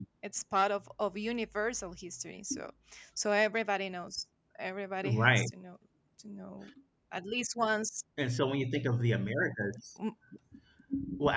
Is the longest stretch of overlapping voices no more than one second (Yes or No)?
Yes